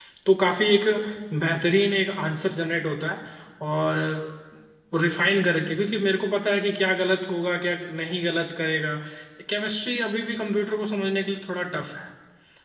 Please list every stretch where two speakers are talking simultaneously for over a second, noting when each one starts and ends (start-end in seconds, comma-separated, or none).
none